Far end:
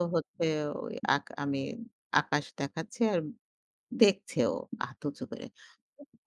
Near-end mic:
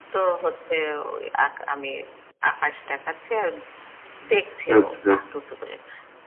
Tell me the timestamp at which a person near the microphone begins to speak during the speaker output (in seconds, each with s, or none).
4.8 s